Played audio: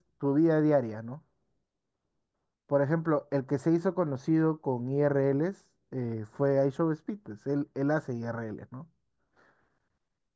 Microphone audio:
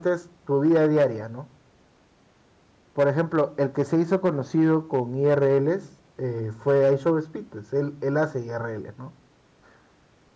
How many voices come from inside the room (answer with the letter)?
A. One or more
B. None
B